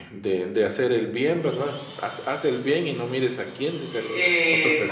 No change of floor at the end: No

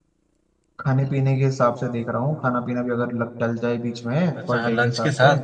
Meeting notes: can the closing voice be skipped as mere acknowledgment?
No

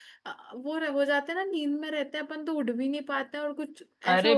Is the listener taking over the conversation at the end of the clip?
Yes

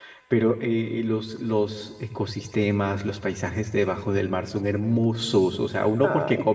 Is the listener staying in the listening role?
Yes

